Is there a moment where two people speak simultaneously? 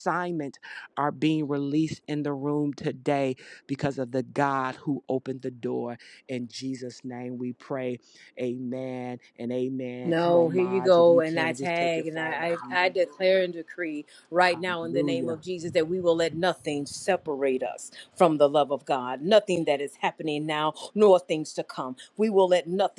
Yes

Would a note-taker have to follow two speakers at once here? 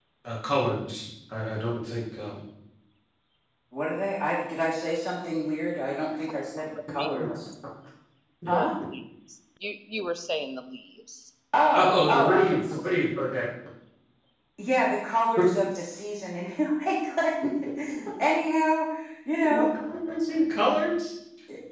Yes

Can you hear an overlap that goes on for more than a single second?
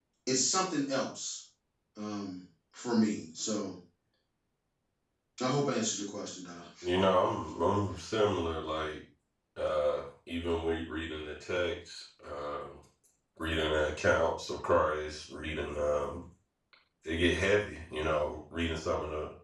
No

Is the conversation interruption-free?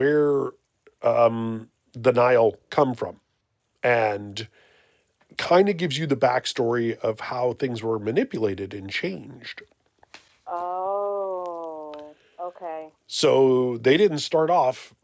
Yes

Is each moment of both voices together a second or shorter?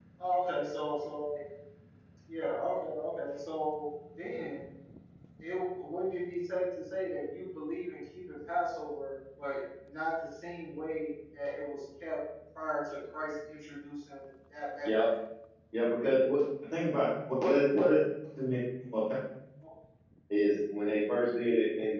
Yes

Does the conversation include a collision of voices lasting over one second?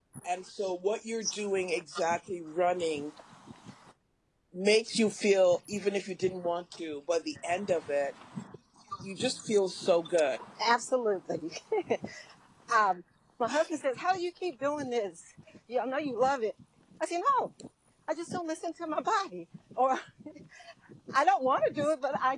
No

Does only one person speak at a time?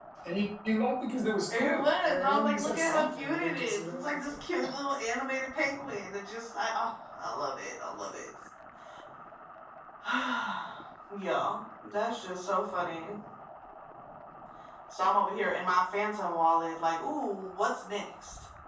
No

